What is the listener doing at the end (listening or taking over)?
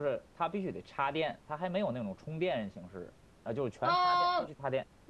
taking over